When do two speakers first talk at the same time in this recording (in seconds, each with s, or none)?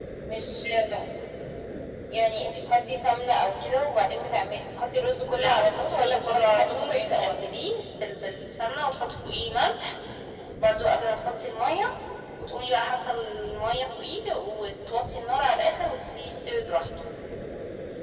5.3 s